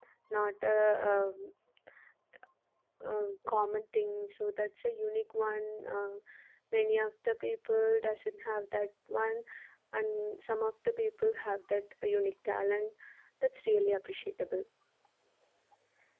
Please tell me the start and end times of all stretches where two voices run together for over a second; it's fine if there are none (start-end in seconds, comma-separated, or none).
none